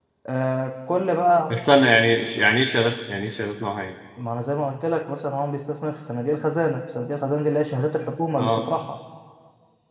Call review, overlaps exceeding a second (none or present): none